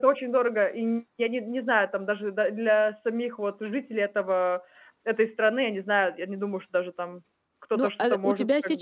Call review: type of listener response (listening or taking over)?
taking over